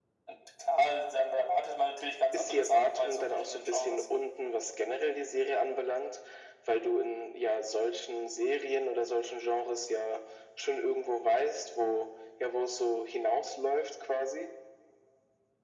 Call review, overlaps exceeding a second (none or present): present